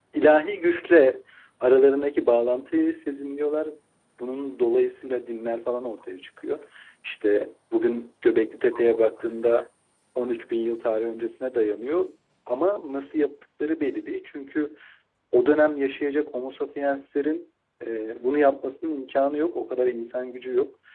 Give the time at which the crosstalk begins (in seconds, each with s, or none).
none